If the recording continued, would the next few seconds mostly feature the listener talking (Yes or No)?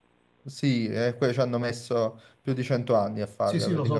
Yes